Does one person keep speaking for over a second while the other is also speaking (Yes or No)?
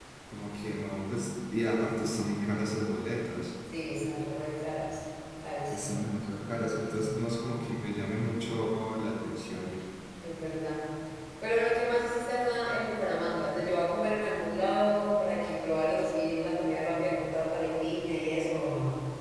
No